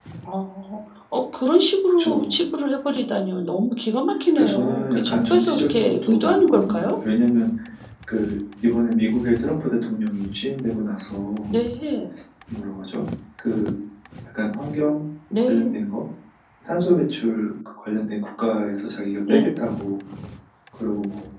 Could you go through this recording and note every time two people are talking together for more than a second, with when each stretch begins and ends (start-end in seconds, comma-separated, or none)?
4.4-7.0